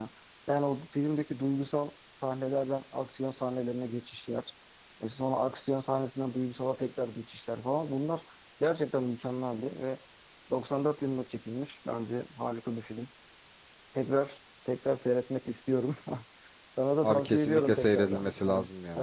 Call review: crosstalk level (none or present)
present